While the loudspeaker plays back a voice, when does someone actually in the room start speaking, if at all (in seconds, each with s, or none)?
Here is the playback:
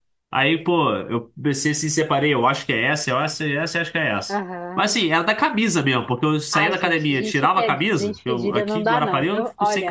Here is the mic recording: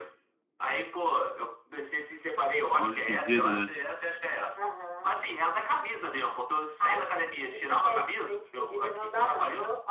2.8 s